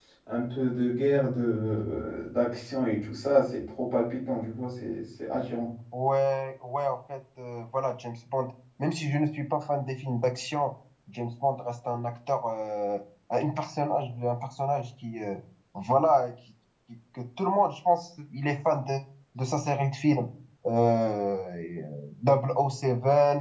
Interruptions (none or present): none